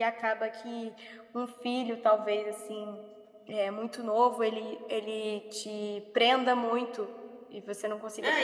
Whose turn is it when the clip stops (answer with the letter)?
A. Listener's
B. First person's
A